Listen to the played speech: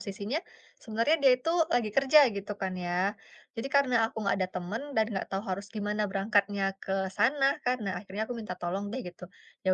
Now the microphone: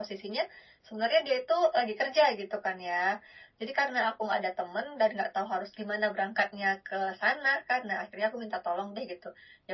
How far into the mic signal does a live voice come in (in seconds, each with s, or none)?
none